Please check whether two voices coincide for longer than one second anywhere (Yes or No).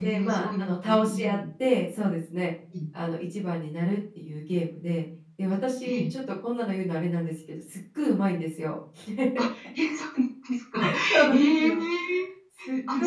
Yes